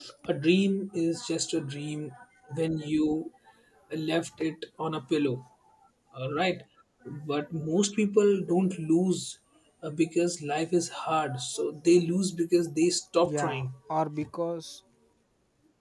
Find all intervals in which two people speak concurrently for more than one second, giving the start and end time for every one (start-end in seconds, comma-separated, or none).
none